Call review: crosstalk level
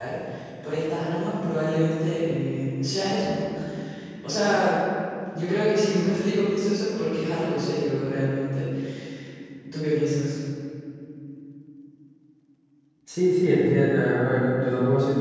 none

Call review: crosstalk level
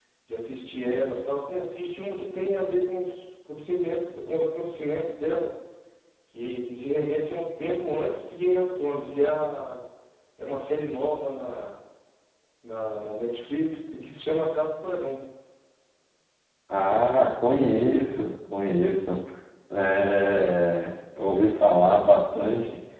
none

